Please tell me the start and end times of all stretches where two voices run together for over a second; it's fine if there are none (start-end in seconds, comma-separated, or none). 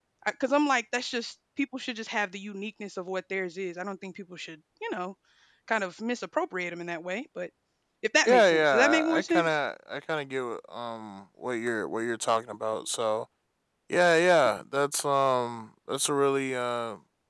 8.2-9.6